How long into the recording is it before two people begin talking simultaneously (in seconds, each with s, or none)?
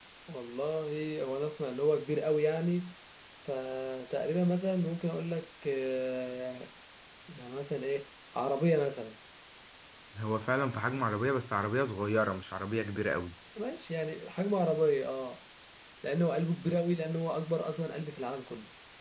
none